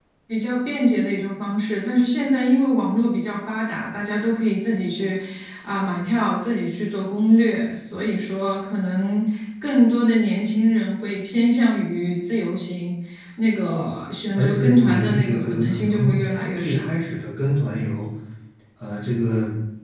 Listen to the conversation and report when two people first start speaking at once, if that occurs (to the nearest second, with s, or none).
14 s